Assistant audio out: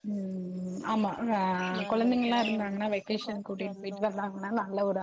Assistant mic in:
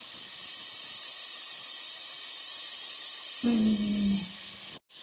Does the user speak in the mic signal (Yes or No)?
Yes